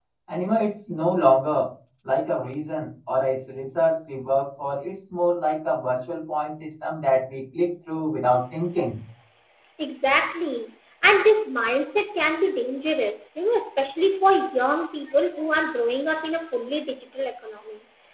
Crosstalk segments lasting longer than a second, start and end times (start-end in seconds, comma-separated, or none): none